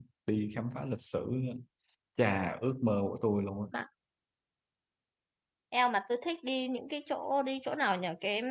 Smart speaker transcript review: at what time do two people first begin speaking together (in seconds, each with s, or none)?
none